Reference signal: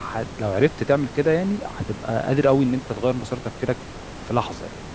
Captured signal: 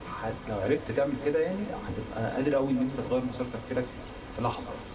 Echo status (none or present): present